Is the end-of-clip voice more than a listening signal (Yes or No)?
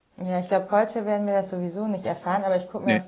No